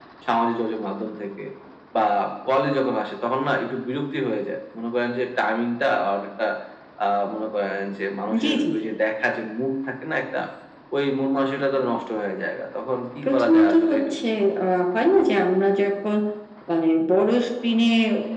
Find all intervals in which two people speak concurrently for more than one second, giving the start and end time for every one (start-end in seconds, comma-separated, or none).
13.2-14.6